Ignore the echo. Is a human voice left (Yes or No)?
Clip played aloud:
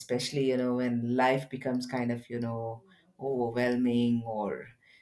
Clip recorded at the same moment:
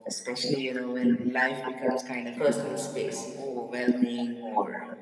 Yes